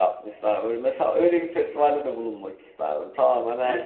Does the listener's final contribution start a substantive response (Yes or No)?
Yes